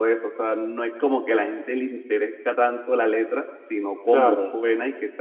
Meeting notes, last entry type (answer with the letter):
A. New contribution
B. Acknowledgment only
B